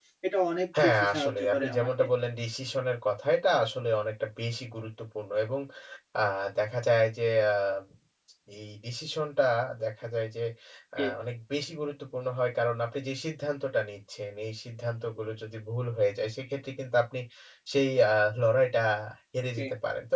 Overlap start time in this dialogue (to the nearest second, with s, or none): 1 s